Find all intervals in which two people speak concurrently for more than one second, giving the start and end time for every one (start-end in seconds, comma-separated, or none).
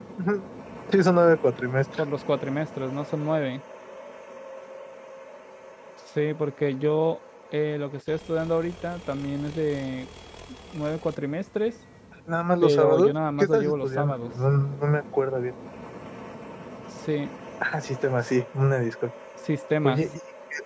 12.6-14.3